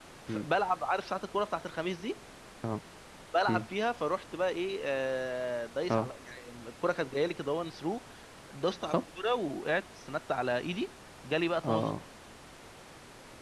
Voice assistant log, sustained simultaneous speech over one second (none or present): none